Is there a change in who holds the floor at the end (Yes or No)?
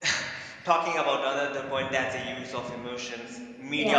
No